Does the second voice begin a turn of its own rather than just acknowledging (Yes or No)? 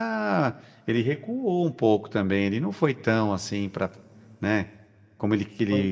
No